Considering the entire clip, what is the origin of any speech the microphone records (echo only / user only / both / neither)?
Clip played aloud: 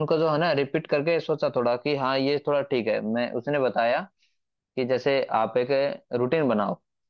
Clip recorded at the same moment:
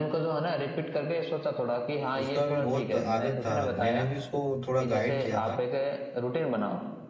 both